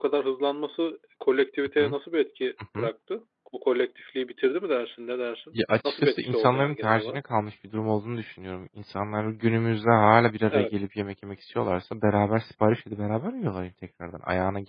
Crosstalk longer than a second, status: present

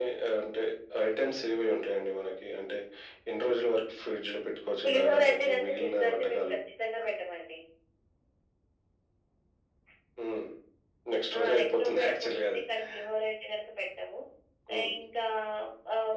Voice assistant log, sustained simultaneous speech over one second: present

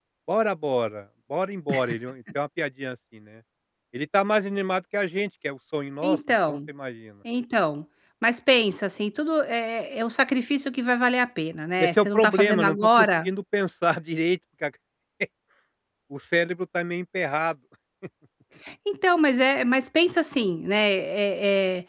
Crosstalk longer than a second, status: present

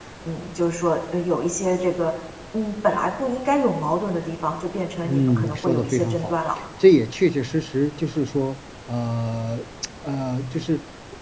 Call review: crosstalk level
present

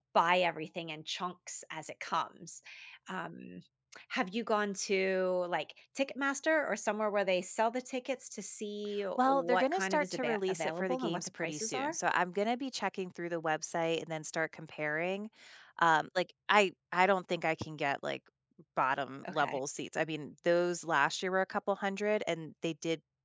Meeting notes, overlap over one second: present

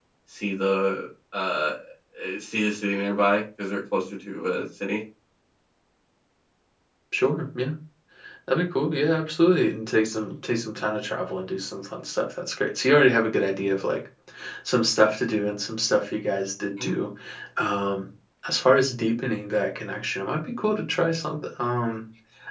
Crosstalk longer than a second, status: none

